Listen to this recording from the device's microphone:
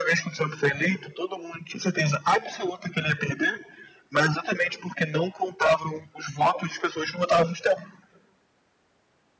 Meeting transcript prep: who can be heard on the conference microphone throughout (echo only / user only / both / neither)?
echo only